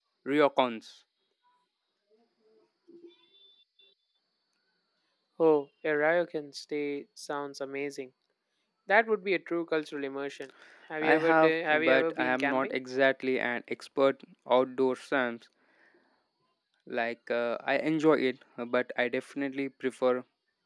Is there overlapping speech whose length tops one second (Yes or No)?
Yes